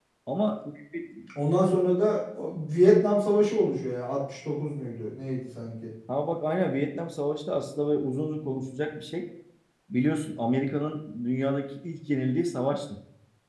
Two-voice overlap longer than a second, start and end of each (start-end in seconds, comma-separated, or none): none